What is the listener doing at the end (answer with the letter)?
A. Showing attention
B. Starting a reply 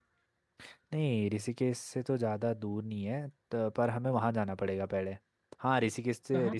A